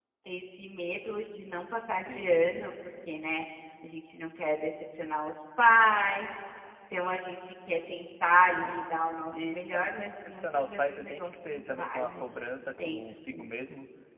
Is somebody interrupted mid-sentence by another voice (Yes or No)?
Yes